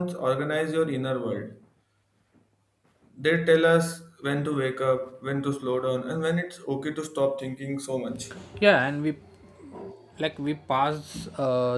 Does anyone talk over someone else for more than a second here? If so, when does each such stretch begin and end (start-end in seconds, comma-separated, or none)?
none